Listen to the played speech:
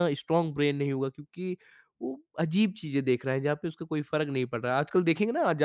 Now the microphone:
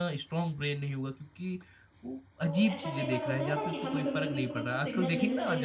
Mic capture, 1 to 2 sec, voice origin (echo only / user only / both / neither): echo only